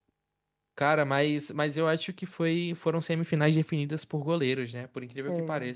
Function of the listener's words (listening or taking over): taking over